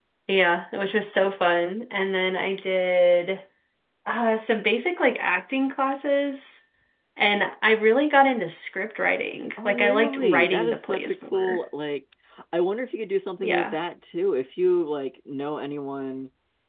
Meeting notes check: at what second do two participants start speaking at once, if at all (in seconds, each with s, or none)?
9.6 s